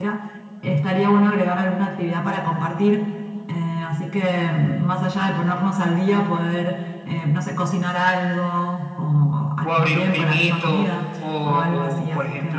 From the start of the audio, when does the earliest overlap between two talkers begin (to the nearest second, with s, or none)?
10 s